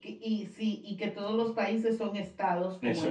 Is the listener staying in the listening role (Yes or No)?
Yes